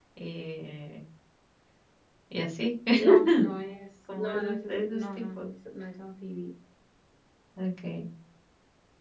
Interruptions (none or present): present